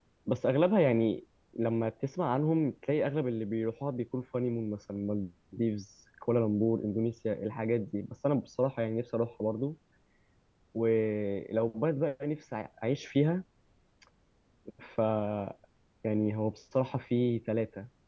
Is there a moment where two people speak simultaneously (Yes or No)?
No